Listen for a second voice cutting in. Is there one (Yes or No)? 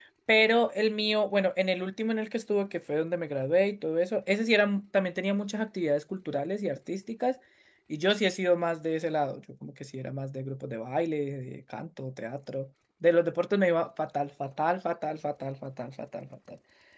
No